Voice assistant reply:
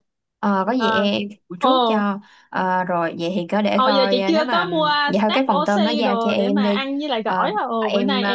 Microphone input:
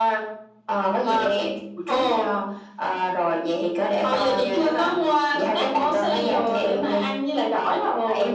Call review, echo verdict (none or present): present